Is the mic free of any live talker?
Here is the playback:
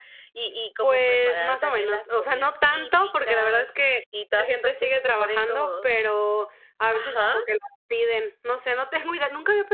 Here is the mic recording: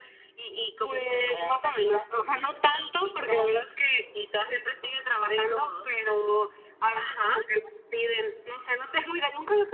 Yes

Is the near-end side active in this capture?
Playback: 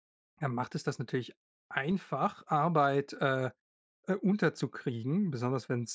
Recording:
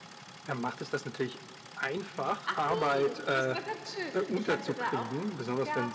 Yes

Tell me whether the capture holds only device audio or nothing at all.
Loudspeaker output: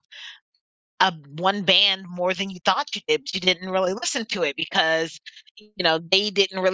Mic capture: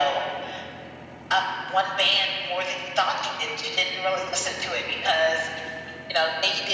Yes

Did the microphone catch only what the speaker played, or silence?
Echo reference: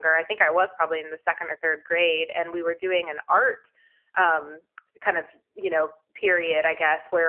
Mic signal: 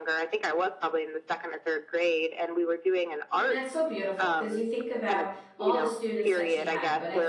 No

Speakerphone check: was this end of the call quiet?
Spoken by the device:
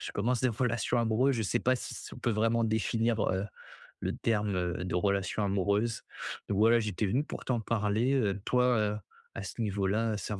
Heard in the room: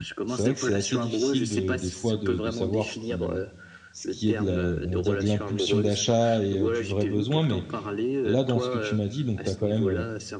No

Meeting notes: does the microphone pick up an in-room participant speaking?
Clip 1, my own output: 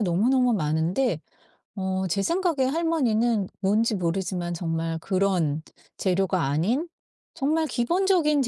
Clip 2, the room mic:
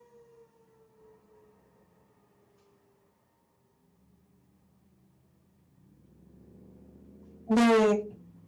Yes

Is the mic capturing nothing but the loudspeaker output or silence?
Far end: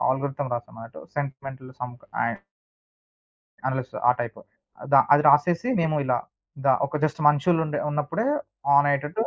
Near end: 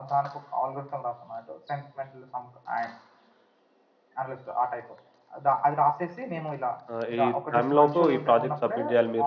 No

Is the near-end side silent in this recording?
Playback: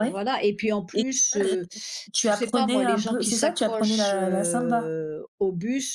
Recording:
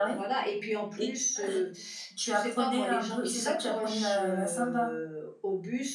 Yes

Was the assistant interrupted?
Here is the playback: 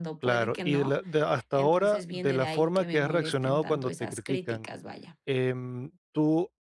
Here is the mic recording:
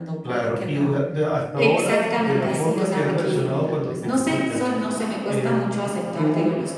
Yes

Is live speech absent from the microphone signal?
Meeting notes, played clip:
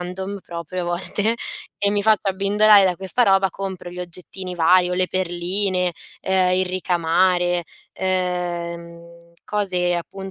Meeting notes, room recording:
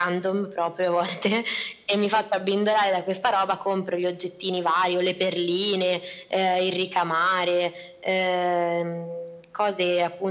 Yes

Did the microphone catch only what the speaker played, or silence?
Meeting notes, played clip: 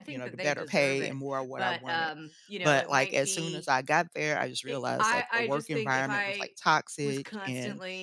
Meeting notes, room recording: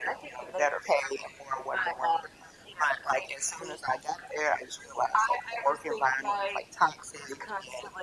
Yes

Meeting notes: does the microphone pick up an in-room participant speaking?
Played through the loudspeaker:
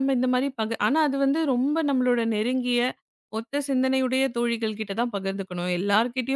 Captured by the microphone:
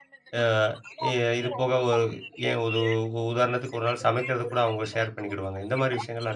Yes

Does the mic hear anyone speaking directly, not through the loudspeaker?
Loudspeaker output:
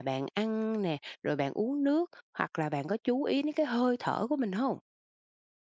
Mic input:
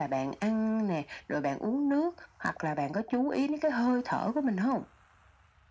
No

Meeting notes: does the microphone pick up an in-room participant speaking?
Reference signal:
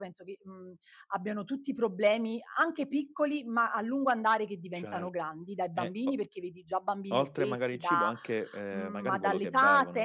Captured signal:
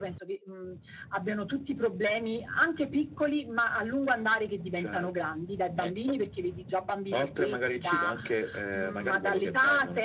No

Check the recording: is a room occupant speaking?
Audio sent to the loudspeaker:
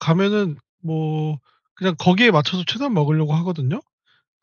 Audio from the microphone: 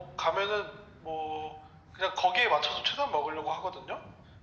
No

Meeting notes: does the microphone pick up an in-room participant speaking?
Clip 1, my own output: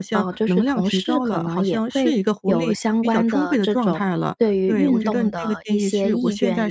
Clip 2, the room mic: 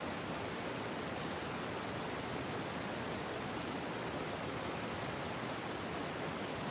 No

